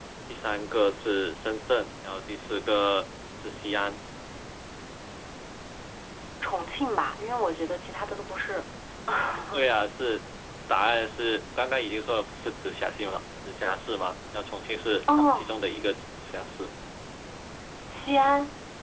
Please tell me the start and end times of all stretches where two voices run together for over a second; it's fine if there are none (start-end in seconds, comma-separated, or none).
none